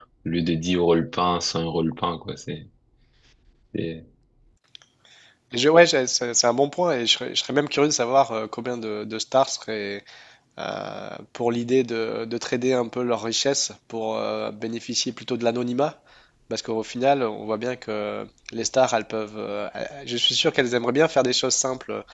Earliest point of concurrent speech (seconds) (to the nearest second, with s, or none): none